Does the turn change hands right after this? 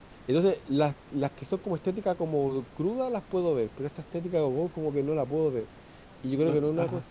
No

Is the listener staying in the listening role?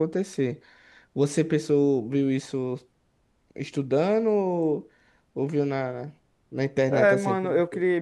No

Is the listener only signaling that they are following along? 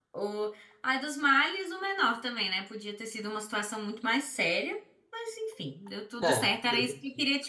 Yes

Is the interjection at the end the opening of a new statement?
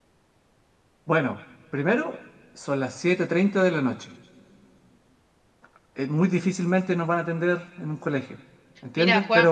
No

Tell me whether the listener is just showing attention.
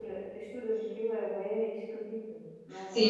No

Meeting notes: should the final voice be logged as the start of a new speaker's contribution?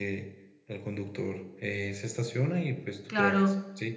Yes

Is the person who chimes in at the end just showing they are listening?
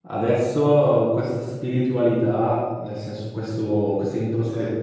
Yes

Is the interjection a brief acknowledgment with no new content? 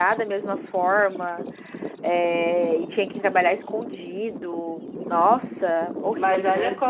No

